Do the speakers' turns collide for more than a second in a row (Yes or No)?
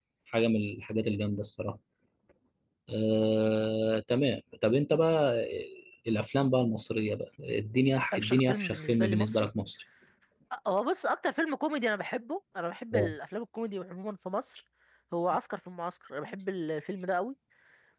Yes